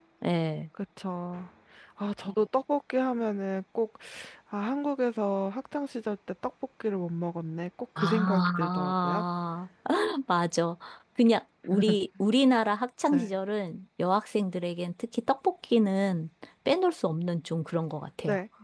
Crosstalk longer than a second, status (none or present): present